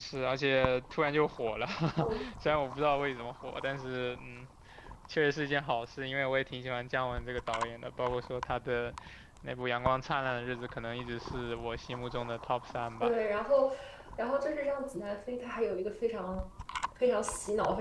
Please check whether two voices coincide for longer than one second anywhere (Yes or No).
No